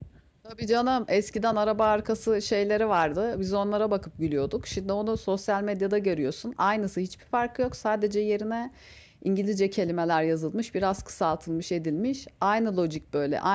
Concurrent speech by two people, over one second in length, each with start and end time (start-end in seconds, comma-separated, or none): none